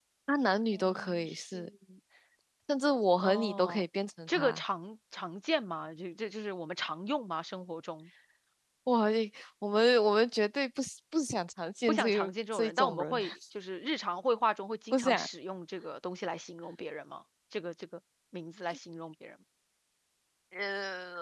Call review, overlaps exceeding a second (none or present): present